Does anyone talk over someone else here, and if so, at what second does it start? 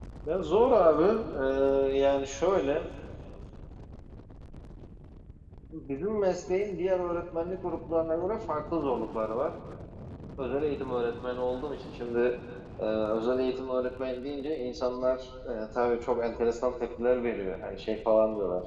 none

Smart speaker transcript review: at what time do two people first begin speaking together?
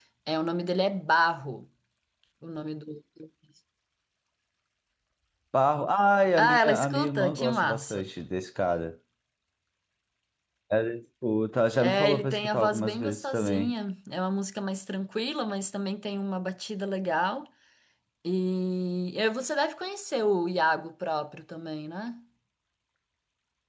6.4 s

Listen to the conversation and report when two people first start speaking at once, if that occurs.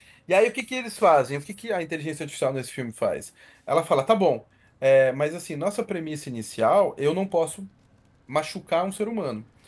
none

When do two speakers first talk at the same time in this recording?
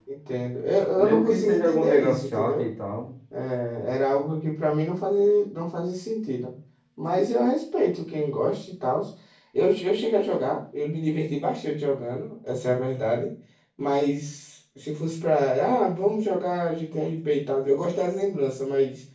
1.0 s

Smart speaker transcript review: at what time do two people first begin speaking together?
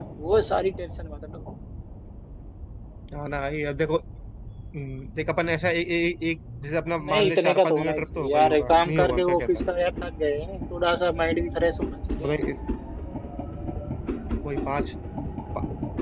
7.0 s

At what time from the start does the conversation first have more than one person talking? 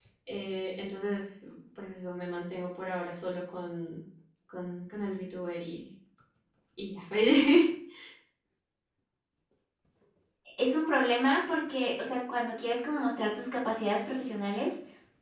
none

